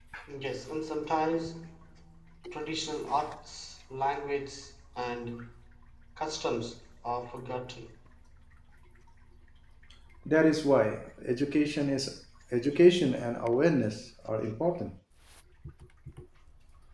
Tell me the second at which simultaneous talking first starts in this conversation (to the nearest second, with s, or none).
none